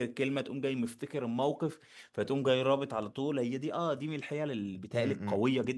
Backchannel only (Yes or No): Yes